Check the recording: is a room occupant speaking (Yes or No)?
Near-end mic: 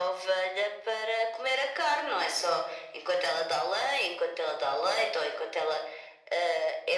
No